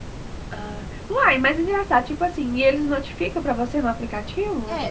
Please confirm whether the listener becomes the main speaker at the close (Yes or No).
Yes